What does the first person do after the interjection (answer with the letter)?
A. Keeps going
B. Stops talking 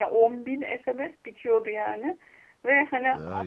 A